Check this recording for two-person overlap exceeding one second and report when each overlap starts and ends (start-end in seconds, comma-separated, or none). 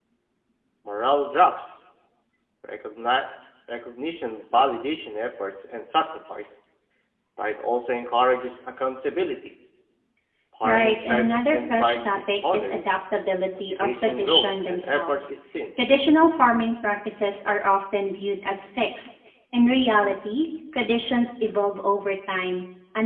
10.6-12.8, 13.7-15.3